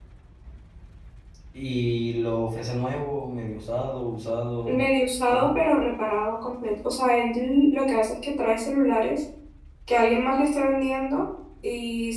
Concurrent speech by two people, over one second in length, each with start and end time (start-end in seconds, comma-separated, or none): none